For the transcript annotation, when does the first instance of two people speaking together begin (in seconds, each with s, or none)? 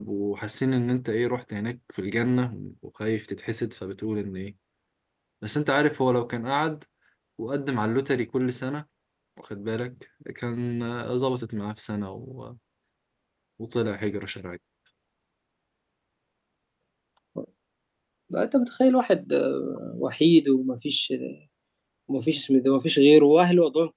none